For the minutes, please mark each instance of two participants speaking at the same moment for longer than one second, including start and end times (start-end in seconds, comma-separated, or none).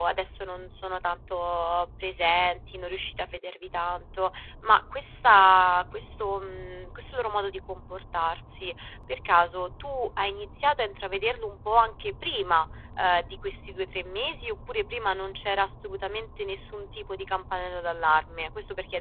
none